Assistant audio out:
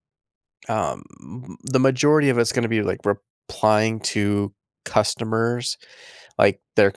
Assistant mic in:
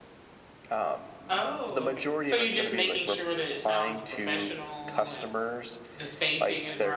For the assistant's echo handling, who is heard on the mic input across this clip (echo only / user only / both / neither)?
both